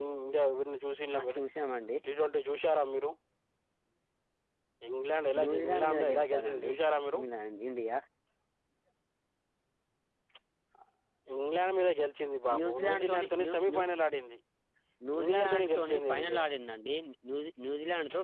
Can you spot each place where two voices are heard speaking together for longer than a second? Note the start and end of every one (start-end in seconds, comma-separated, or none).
5.4-6.7, 12.6-13.8, 15.2-16.4